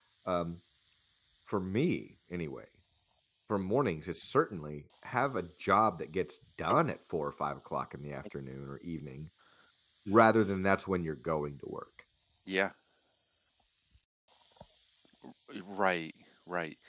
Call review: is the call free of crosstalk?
Yes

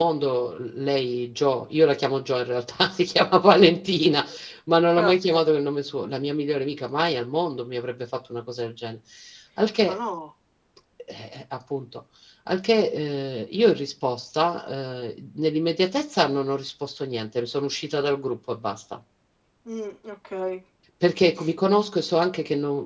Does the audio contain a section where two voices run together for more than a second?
No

